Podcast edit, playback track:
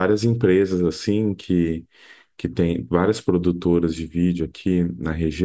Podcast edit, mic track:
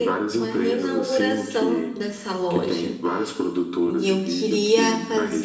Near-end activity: present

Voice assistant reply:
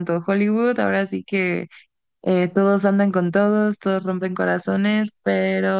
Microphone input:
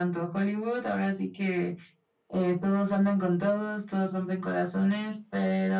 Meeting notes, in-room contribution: none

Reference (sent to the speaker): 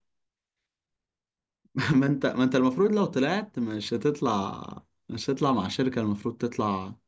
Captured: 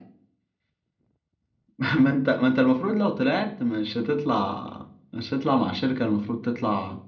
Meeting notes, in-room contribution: none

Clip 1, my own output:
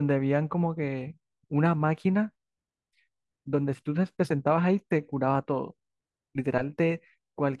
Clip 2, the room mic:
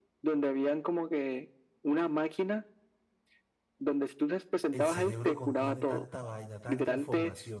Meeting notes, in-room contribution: present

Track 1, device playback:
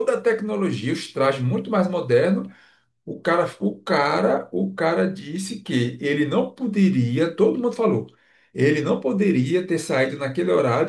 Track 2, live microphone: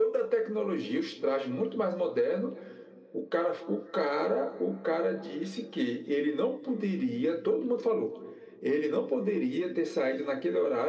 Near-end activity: none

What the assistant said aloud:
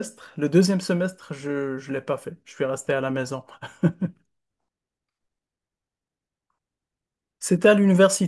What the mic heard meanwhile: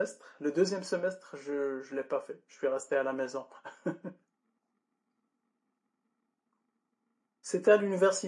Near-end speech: none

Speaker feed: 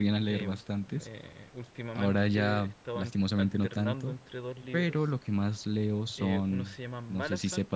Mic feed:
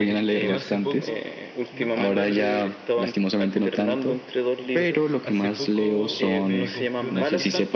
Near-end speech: present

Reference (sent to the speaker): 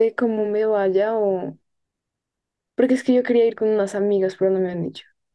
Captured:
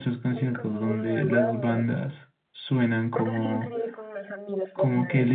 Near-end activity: present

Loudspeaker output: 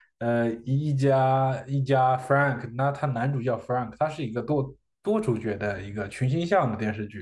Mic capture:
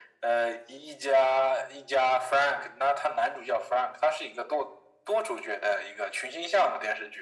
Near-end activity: none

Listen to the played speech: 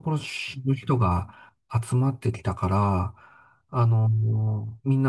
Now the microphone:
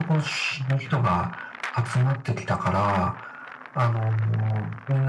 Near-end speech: none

